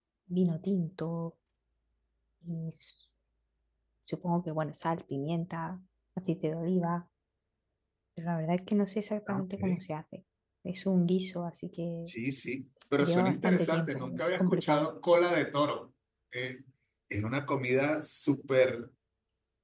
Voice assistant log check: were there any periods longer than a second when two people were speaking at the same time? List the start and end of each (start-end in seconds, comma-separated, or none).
13.0-14.9